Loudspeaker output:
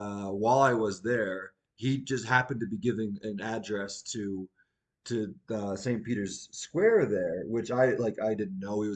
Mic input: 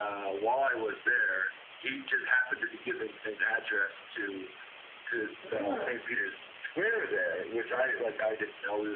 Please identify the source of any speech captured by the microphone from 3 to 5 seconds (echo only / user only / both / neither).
echo only